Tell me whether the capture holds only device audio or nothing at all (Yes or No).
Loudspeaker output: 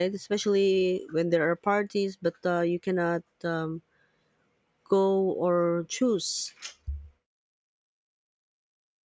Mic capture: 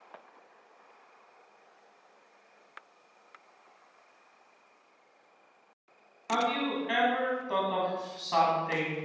No